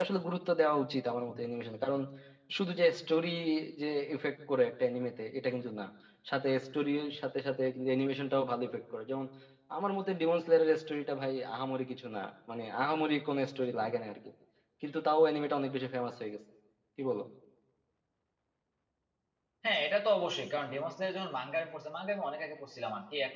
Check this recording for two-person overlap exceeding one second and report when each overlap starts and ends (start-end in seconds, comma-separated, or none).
none